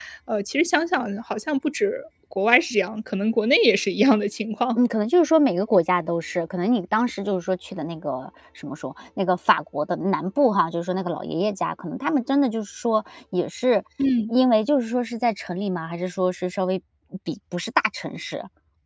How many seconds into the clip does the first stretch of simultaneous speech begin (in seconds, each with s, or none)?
none